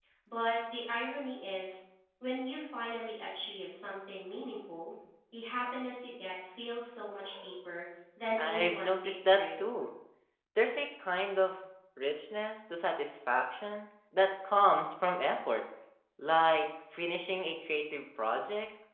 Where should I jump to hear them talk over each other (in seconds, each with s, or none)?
8.4 s